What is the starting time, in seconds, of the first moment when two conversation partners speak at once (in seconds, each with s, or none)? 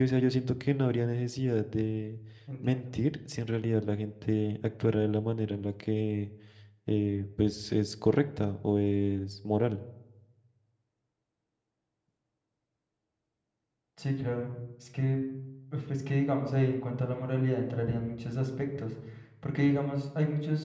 none